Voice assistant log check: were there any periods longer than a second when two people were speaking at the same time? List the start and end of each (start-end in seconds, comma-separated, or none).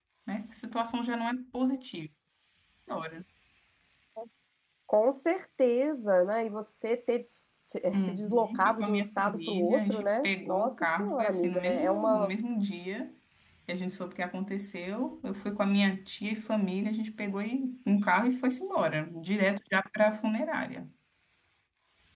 7.9-12.3